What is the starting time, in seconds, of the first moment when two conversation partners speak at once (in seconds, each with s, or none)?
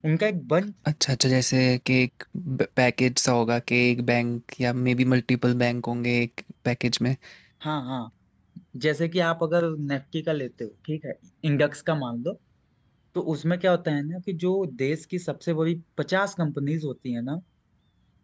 none